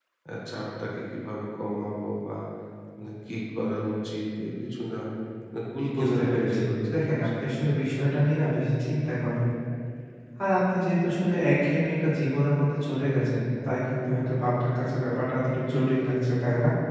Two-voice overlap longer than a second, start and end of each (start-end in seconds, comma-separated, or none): 6.0-7.3